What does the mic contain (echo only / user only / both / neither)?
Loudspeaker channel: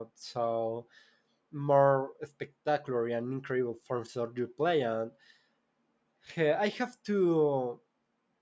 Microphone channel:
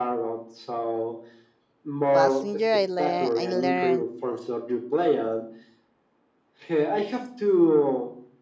both